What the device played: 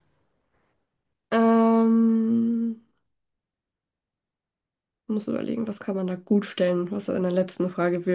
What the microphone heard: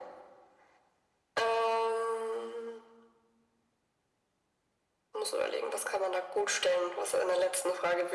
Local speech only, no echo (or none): none